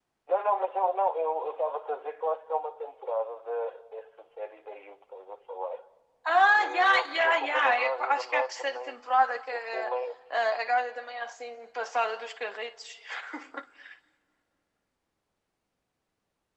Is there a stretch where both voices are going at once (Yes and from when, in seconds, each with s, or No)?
Yes, from 6.5 s